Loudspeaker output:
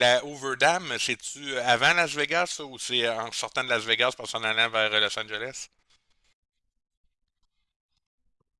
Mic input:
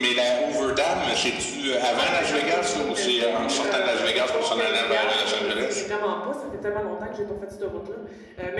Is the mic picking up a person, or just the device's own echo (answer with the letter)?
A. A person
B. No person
A